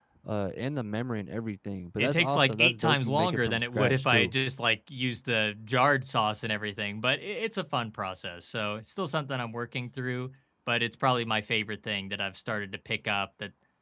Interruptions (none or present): present